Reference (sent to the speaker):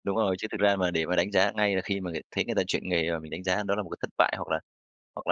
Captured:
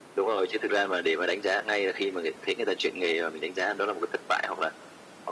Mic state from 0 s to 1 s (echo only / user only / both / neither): echo only